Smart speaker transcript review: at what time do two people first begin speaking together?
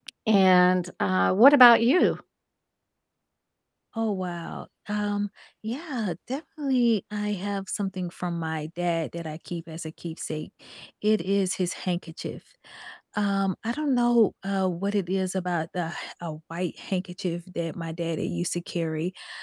none

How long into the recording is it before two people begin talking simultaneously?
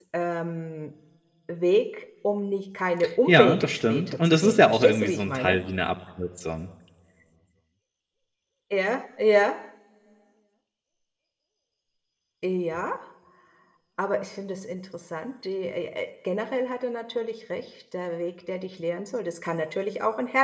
3 s

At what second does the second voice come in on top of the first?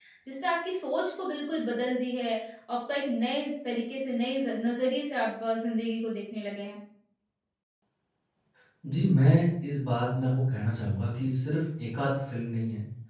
none

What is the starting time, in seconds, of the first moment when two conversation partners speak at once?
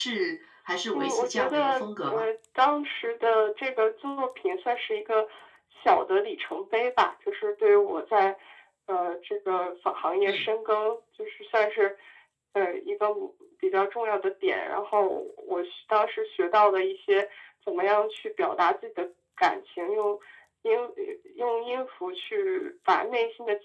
1 s

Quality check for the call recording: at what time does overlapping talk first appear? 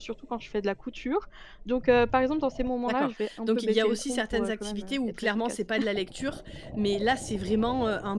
3 s

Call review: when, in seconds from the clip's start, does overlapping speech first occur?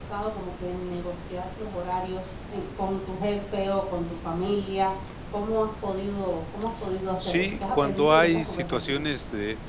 7 s

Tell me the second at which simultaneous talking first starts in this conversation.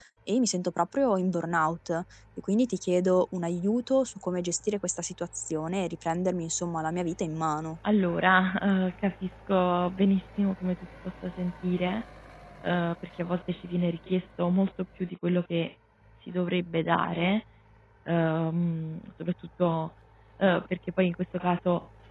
none

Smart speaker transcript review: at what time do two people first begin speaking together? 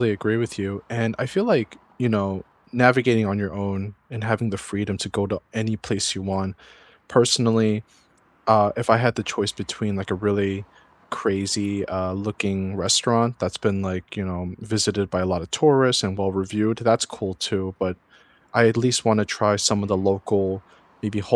none

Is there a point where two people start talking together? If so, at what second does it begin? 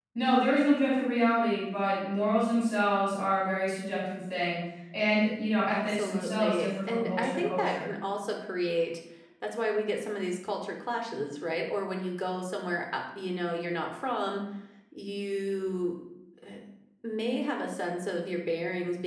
6 s

